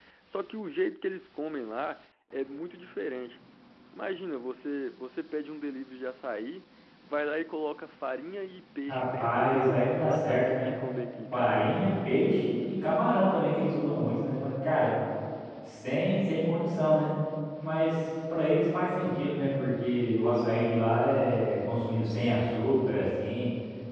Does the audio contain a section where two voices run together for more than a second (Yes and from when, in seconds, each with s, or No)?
Yes, from 8.9 s